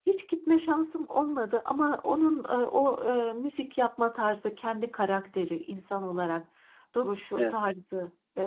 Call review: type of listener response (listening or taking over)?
listening